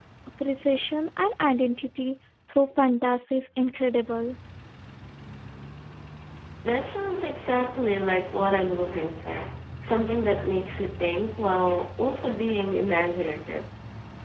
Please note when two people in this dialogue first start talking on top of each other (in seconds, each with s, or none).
none